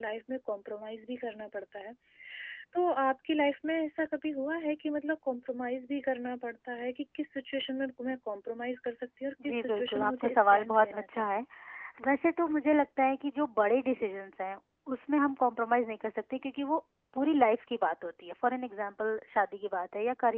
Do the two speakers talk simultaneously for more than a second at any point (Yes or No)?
Yes